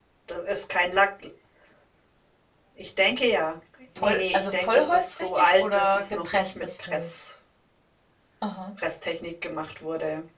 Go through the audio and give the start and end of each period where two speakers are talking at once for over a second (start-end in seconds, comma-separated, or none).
4.0-7.1